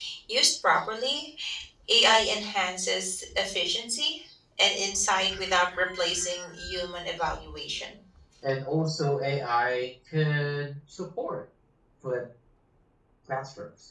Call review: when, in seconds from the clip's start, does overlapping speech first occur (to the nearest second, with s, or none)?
none